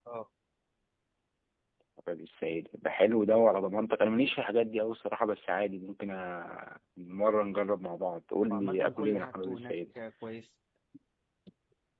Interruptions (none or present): present